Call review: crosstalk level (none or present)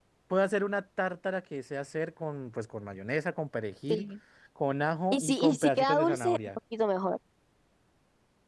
present